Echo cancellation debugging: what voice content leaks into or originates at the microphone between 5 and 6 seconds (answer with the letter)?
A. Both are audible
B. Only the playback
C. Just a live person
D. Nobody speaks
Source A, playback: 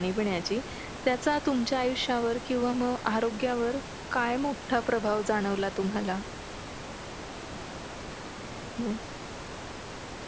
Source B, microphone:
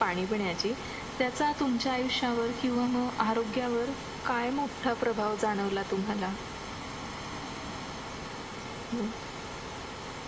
B